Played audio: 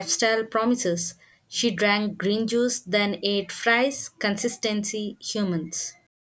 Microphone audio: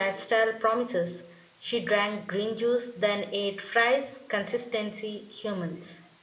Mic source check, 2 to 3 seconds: echo only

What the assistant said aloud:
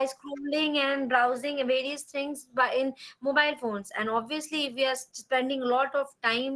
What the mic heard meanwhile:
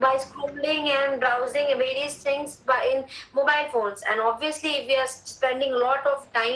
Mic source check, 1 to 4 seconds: echo only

